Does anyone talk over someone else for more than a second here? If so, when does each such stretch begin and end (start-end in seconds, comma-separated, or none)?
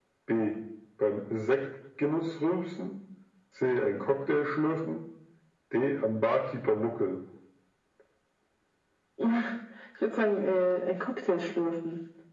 none